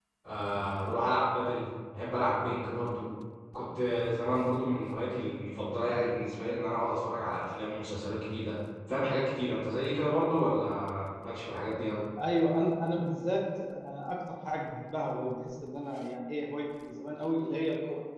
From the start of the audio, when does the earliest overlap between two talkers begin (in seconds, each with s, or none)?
none